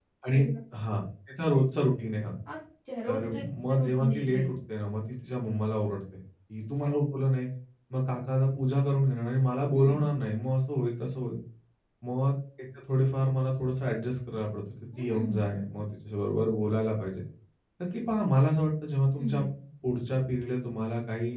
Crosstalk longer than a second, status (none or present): present